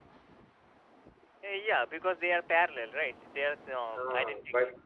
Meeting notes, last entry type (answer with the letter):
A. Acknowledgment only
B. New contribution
B